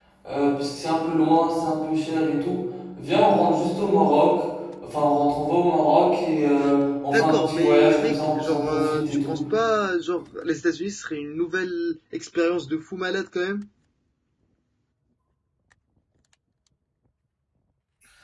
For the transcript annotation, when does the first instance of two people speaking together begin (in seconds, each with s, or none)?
7.1 s